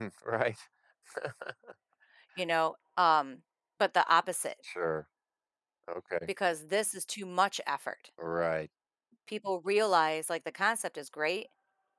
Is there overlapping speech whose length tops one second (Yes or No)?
No